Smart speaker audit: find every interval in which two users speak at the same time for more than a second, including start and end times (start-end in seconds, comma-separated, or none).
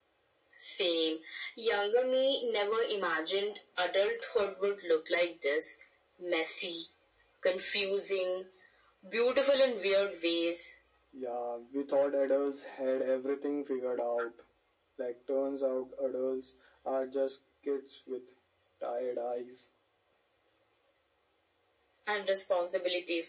none